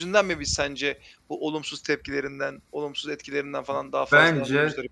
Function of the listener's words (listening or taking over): taking over